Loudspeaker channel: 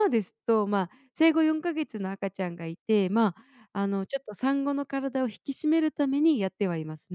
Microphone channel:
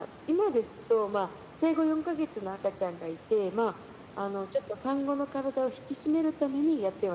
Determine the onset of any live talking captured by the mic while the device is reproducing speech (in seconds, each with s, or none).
none